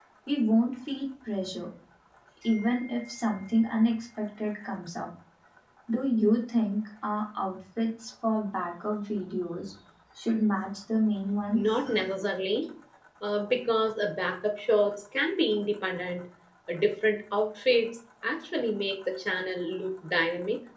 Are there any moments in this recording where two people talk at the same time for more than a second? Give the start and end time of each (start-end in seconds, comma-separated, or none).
none